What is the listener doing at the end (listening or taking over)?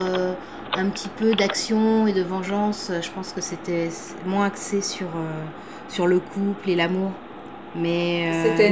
listening